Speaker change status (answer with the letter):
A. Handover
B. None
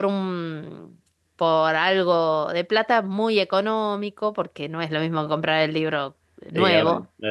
A